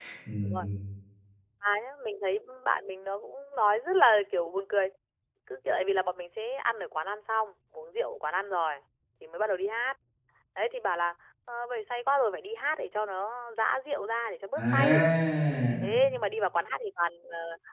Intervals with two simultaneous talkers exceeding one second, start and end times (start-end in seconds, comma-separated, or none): none